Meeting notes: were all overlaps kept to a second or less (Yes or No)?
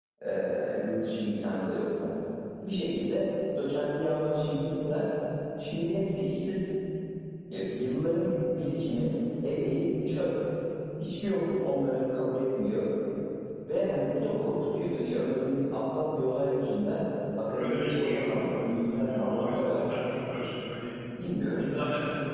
No